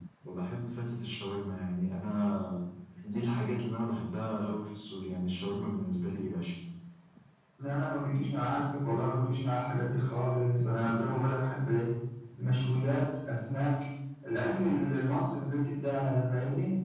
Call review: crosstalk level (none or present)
none